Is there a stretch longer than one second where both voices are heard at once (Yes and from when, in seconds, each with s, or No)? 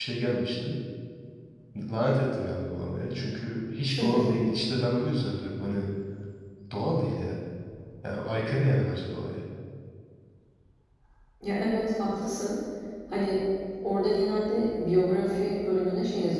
No